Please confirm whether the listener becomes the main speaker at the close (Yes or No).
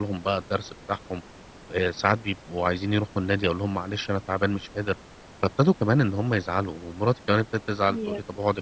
No